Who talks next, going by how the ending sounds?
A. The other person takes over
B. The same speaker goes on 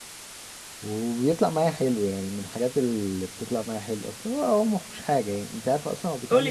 A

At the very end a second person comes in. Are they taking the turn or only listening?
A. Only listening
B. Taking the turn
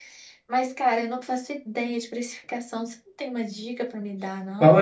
B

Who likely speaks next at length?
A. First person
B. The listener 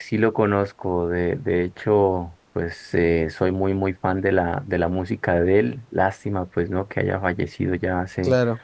A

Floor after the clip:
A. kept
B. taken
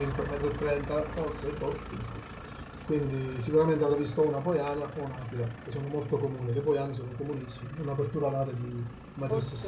B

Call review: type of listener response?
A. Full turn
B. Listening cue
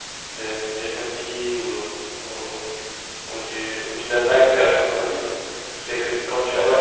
B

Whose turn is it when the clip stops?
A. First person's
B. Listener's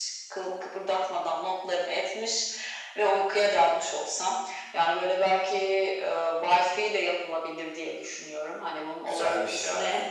B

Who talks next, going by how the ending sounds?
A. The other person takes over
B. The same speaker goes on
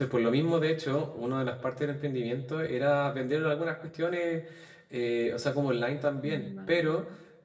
B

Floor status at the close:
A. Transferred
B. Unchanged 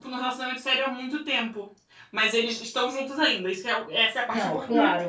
A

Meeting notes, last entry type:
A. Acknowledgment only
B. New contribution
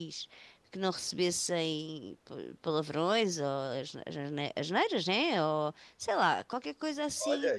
B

